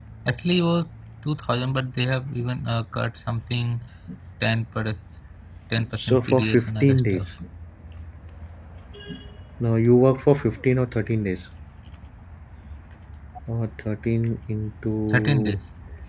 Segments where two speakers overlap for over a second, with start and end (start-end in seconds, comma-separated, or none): 6.0-7.3